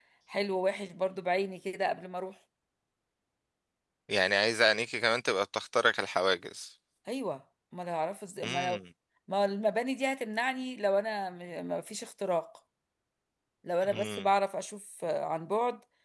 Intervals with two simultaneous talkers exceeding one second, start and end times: none

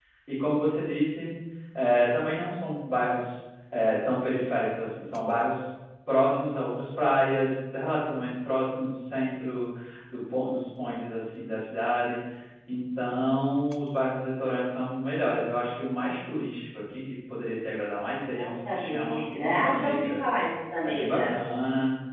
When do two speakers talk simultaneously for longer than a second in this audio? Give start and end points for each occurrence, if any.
18.3-20.2

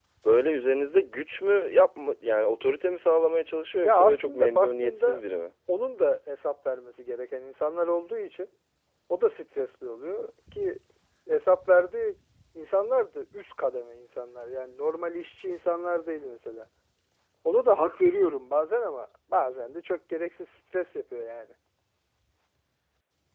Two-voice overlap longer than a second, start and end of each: 3.8-5.2

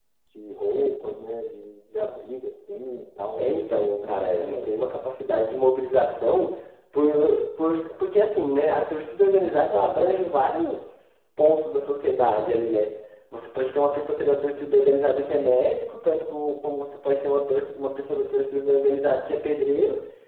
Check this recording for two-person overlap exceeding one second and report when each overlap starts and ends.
3.4-4.9

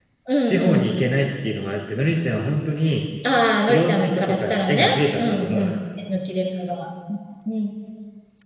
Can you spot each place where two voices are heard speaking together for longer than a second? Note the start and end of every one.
3.7-5.8

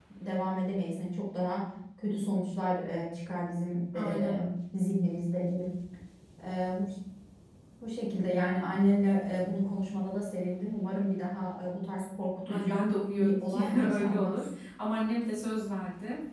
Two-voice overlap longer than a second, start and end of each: 13.2-14.4

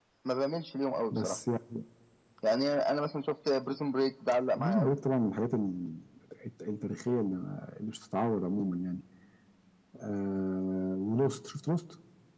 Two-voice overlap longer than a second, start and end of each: none

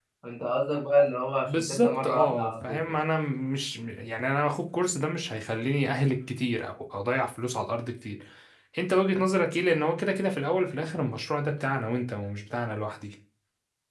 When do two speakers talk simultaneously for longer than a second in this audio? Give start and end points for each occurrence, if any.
1.4-2.9

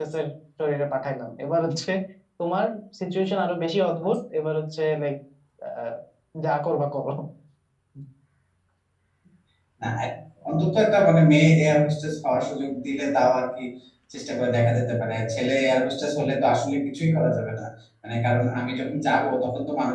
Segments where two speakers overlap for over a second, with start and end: none

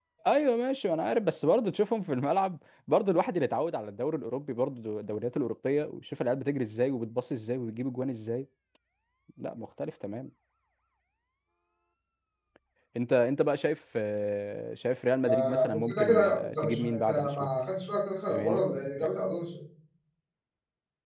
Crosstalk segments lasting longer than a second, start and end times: 15.2-17.5

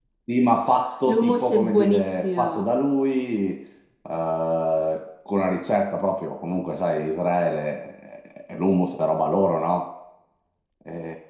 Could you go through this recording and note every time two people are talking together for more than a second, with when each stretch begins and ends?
1.1-2.7

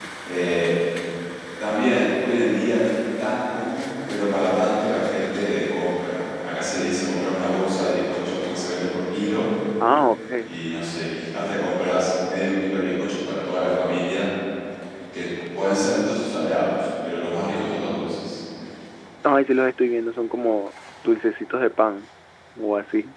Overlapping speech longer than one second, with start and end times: none

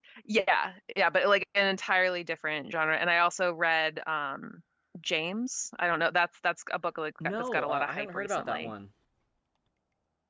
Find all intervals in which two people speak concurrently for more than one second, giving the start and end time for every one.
7.2-8.7

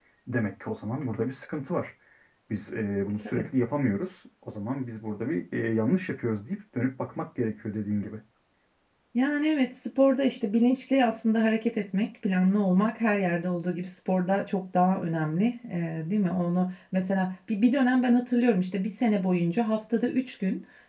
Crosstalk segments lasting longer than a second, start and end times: none

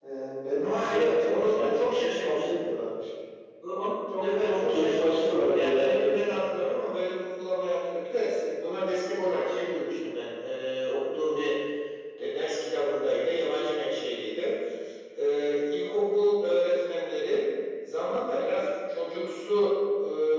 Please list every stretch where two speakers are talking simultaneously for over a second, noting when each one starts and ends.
0.6-2.7, 4.2-6.1

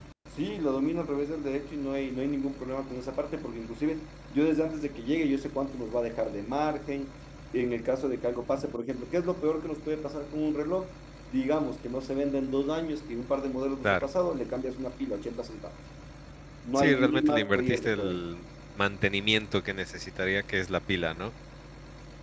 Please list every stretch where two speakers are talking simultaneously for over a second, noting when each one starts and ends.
16.8-18.2

